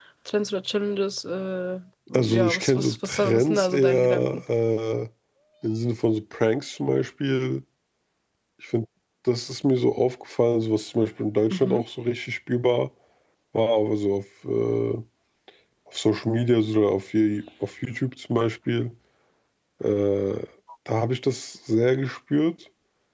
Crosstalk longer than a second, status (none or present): present